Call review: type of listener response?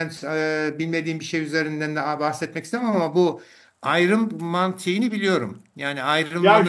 taking over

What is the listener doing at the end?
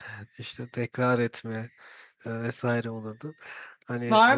taking over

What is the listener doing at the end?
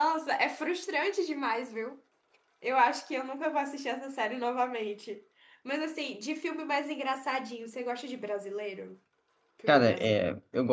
taking over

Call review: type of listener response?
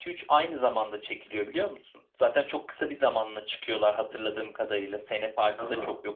listening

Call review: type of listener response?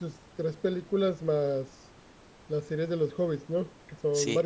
taking over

